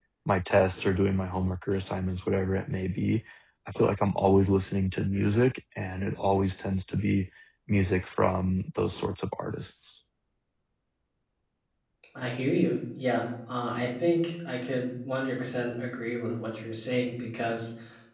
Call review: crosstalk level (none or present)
none